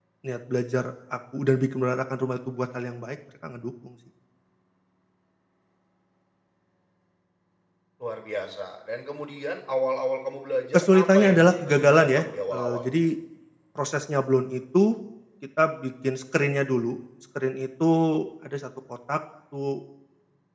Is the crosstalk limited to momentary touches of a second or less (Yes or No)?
No